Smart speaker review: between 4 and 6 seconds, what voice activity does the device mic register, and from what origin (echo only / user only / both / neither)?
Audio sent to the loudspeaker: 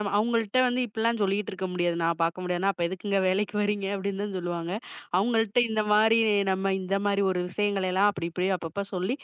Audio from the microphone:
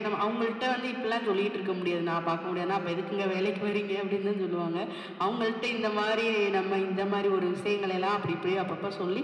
echo only